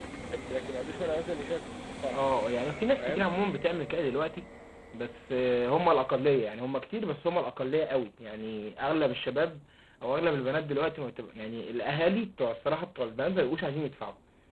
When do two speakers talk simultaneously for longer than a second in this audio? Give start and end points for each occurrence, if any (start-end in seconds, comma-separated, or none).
none